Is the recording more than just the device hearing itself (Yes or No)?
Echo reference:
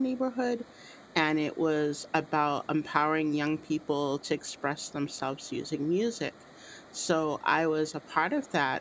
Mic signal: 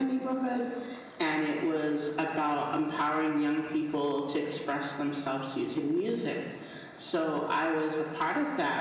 No